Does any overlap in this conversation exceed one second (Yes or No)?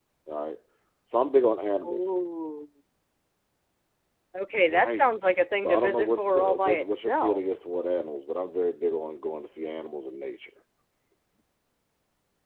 Yes